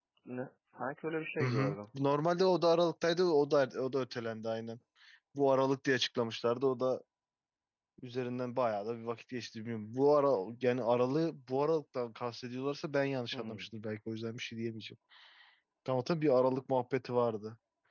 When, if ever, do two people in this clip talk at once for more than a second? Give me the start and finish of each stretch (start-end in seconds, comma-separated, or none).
none